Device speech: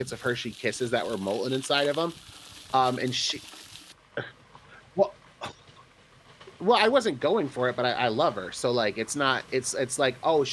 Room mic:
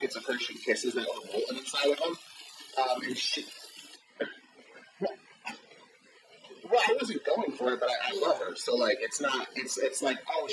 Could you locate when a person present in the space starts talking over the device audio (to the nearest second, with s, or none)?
8 s